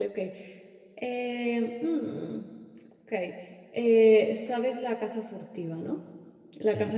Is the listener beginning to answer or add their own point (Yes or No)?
No